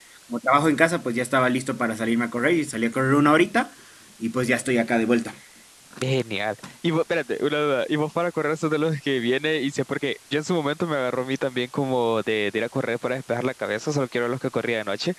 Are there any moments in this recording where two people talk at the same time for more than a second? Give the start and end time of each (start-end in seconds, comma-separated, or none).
none